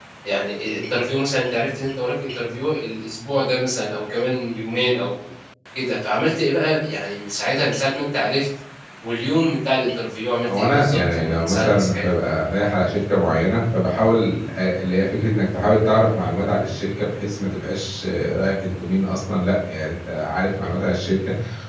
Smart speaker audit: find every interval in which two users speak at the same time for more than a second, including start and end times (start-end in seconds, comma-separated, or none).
10.4-12.1